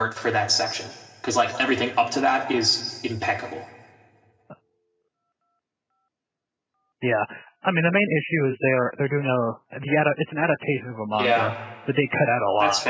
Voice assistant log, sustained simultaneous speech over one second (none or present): none